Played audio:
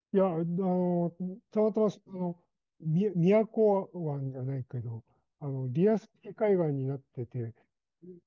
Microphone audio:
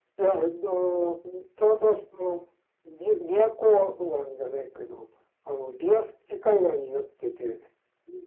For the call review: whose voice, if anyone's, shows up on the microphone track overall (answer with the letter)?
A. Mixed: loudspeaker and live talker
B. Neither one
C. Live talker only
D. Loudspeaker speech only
D